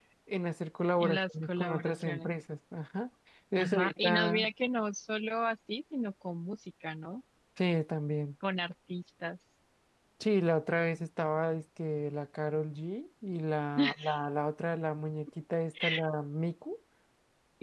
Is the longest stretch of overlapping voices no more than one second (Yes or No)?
No